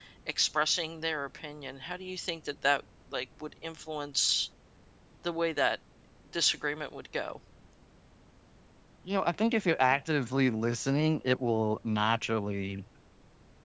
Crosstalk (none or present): none